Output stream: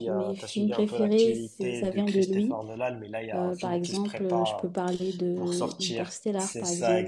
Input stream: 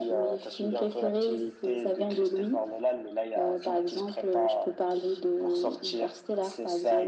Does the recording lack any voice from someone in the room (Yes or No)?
Yes